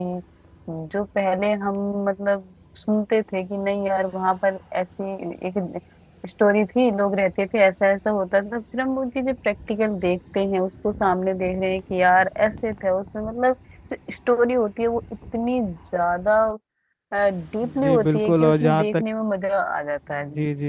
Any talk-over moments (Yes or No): Yes